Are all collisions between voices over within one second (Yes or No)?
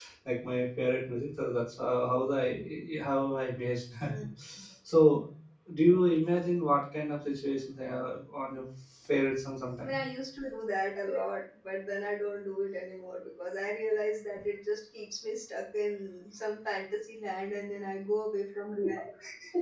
Yes